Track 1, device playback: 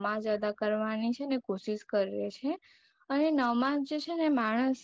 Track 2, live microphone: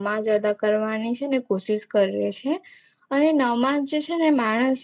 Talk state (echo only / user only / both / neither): echo only